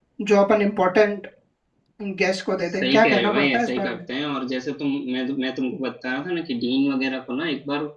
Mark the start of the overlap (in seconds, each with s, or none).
2.6 s